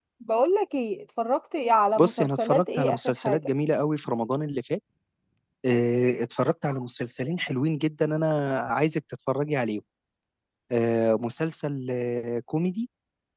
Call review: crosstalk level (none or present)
present